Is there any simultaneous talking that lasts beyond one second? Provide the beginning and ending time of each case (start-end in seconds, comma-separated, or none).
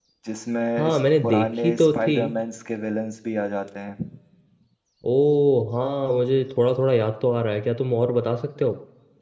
0.8-2.2